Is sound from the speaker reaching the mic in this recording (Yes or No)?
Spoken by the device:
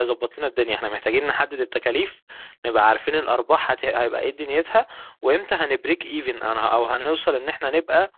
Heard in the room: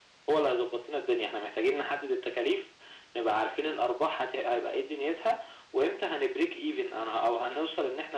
Yes